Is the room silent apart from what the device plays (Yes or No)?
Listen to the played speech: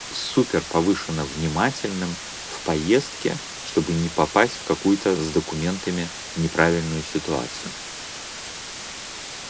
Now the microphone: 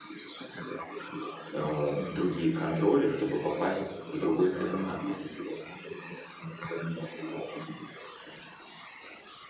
No